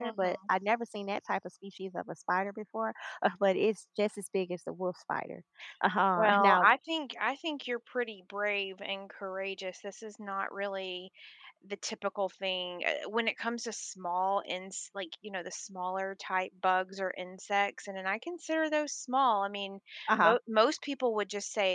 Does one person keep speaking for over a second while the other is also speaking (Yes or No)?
No